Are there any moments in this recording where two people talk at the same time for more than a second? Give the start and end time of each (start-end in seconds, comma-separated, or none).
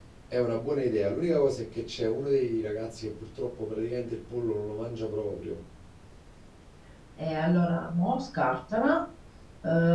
none